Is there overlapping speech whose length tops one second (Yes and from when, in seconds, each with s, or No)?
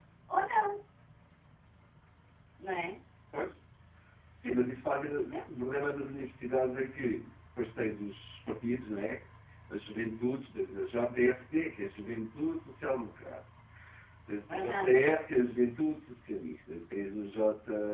No